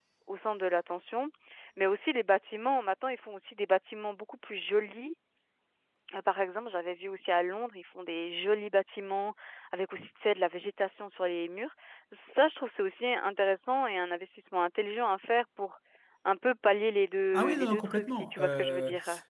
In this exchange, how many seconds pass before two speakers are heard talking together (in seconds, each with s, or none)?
17.3 s